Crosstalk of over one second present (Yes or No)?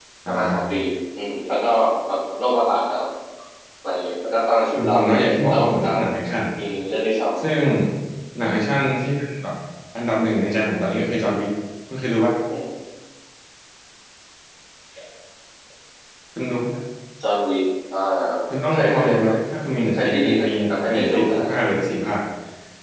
Yes